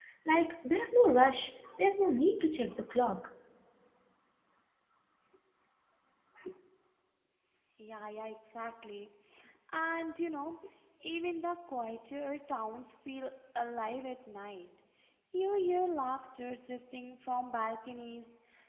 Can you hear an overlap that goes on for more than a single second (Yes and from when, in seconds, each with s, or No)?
No